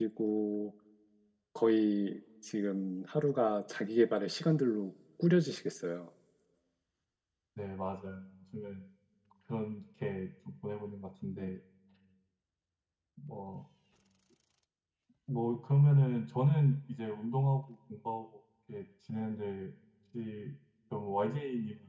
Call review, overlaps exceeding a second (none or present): none